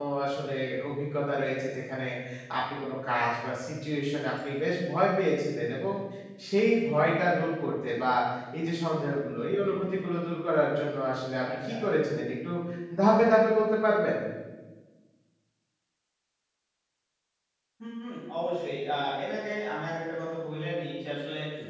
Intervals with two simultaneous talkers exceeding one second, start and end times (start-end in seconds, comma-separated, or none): none